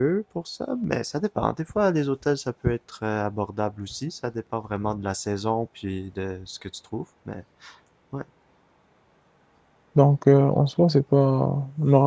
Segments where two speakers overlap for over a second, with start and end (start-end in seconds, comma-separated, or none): none